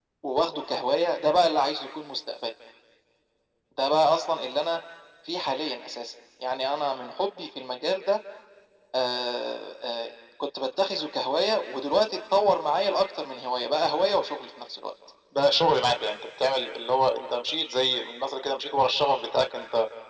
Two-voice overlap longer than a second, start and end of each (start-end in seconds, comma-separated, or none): none